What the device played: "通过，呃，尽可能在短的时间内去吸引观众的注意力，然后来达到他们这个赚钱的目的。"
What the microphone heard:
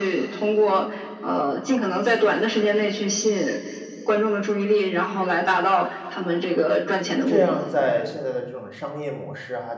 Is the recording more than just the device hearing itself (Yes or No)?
Yes